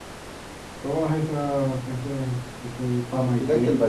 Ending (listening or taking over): taking over